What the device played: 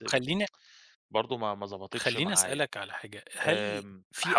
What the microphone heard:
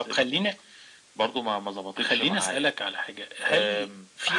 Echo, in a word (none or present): present